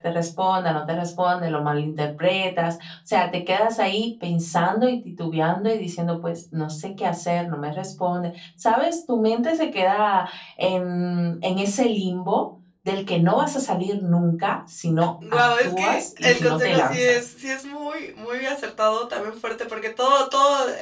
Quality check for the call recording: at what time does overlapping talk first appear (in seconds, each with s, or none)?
15.2 s